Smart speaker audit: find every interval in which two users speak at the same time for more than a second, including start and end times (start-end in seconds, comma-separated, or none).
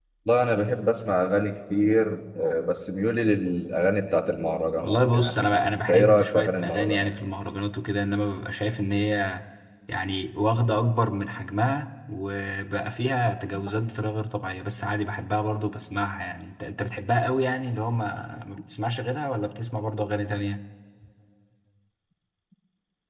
4.8-7.1